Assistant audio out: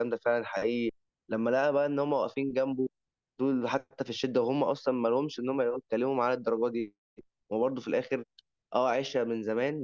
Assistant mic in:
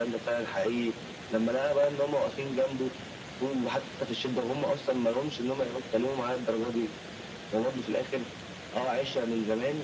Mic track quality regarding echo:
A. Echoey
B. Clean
A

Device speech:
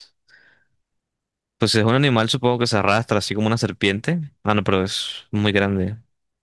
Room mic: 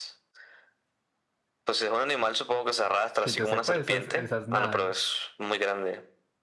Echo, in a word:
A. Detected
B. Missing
A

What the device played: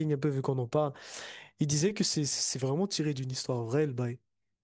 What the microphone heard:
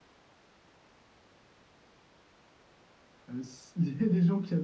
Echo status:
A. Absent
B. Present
A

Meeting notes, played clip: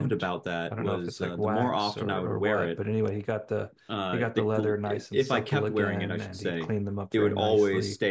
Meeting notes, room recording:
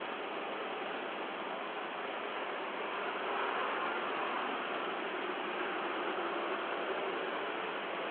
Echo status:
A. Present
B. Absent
B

